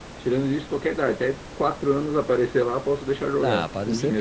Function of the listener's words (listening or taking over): taking over